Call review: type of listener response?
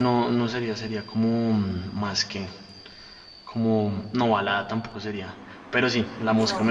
listening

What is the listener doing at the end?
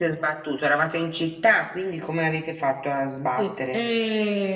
taking over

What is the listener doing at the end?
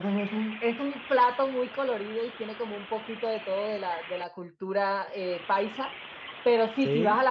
listening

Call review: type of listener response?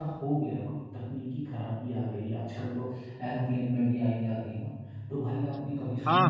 listening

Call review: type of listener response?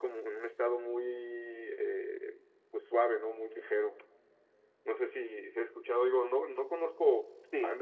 listening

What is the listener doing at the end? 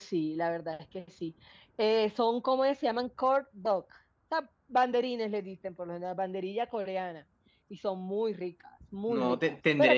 taking over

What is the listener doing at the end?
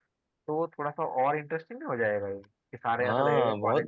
taking over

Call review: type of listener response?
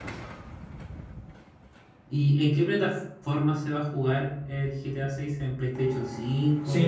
taking over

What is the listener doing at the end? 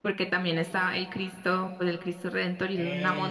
listening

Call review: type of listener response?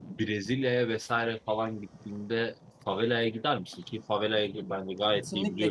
taking over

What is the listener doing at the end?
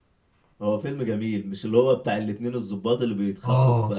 listening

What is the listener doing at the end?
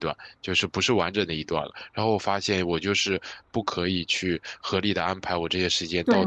taking over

